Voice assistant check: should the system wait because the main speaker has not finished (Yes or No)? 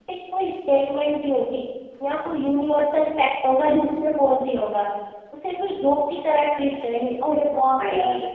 Yes